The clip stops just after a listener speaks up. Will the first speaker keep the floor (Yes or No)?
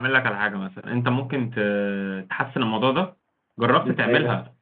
Yes